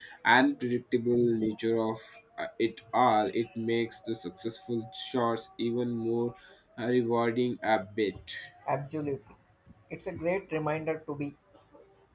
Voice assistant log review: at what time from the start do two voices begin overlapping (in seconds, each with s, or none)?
none